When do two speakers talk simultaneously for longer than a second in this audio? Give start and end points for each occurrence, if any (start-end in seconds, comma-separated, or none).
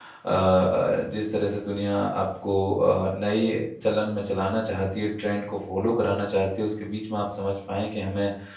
none